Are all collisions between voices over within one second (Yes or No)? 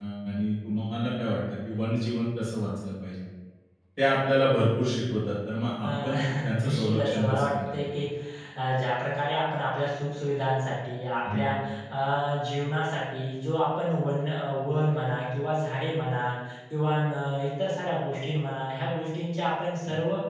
No